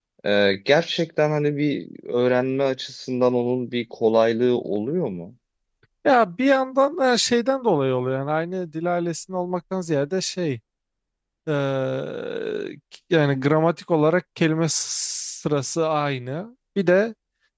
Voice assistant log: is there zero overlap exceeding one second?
Yes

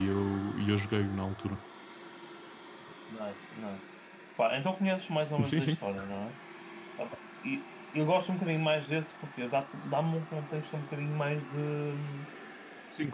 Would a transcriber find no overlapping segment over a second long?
Yes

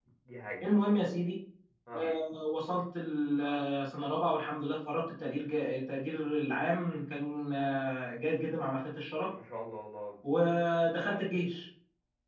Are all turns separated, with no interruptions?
Yes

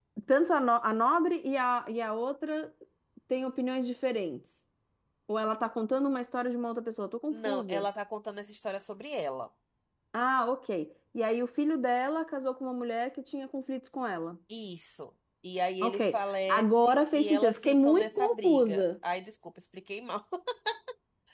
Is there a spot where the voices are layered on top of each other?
Yes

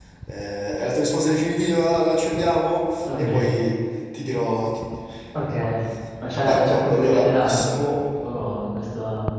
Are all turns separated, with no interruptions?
No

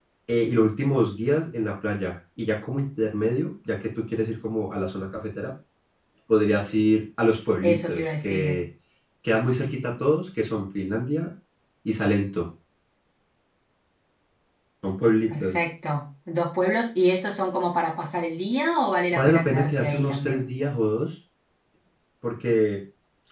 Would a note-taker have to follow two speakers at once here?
Yes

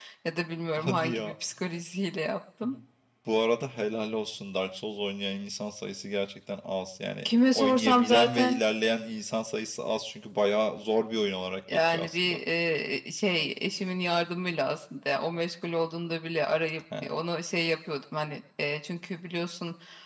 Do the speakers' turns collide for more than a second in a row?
Yes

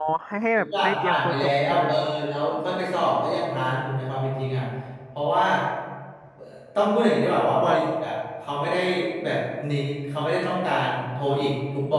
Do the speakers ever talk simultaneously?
Yes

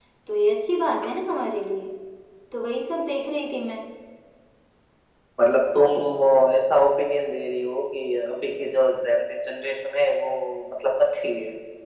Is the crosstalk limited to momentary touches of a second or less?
Yes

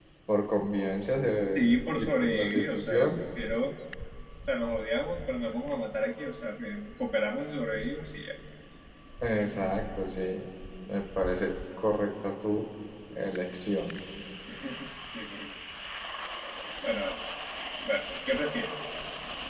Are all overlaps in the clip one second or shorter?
No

